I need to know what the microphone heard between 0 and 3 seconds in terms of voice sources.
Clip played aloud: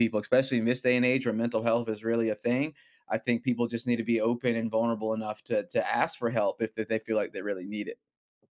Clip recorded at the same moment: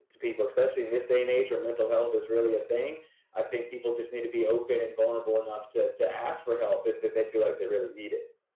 echo only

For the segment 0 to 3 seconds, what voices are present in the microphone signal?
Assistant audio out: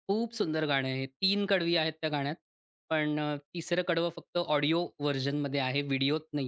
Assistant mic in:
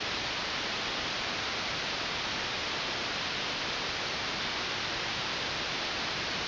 neither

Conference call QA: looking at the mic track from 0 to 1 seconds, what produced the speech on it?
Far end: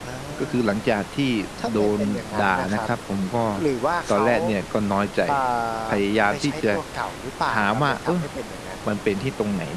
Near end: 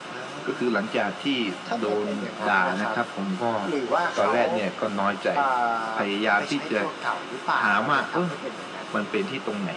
echo only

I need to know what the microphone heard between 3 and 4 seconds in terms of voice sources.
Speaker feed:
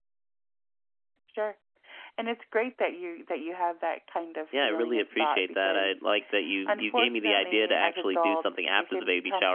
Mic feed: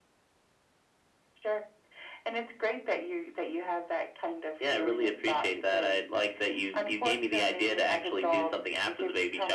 echo only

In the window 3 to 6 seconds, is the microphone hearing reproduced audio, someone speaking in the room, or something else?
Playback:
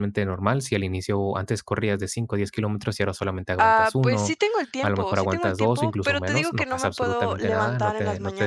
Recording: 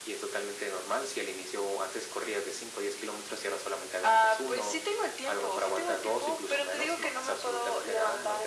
echo only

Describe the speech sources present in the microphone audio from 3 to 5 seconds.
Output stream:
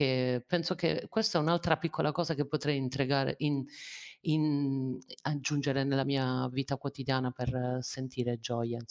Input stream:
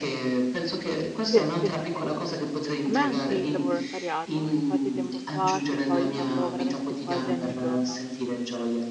both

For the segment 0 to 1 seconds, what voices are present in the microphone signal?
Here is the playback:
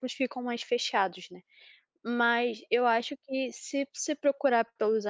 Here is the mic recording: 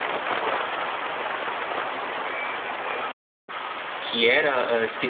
neither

